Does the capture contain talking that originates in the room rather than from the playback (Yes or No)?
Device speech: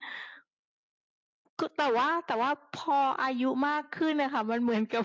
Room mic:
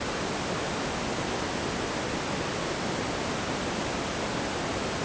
No